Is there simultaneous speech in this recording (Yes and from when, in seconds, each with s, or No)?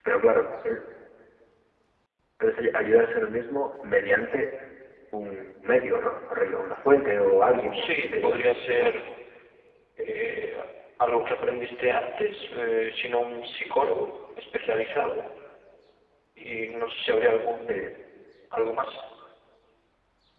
Yes, from 7.7 s